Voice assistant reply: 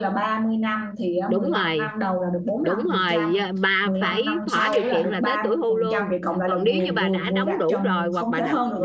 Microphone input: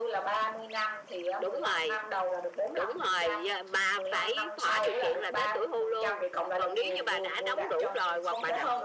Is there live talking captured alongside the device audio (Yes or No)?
No